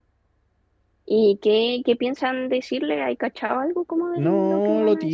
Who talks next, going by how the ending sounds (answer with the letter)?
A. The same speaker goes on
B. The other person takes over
B